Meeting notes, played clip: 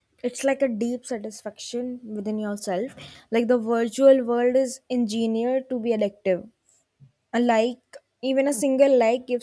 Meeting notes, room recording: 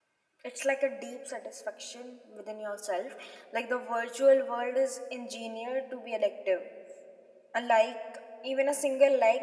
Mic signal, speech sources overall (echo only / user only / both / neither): echo only